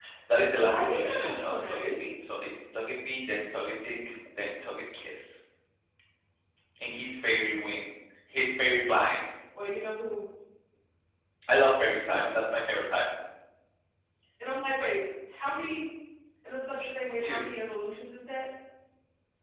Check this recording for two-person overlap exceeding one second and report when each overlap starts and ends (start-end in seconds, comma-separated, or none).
0.7-2.1